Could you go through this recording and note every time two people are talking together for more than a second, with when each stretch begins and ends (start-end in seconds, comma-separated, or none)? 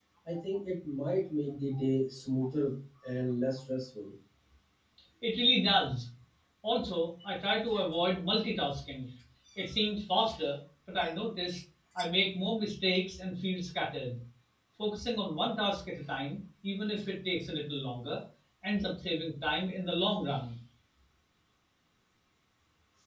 none